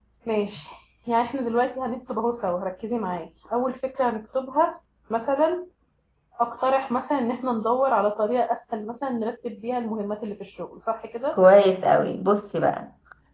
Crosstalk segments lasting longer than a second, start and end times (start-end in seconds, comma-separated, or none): none